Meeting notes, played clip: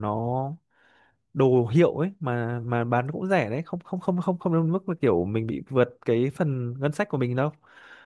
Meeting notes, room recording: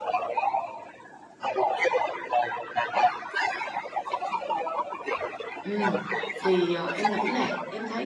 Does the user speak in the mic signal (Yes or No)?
Yes